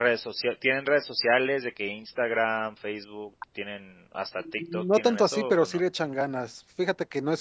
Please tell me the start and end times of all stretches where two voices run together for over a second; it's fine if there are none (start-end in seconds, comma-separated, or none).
4.4-5.8